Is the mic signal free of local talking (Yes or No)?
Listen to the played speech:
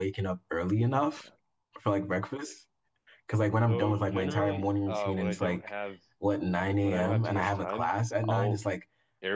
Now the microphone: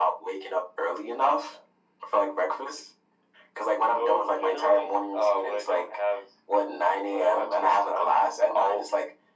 Yes